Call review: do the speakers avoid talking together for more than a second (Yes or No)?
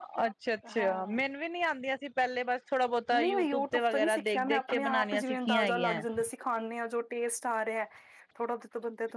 No